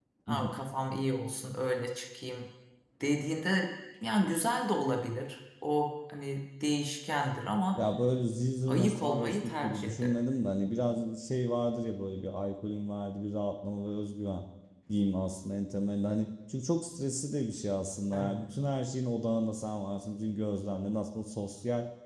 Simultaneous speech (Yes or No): Yes